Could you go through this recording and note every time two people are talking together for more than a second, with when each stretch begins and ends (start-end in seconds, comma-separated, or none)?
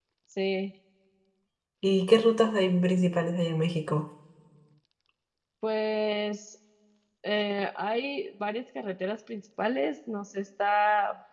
none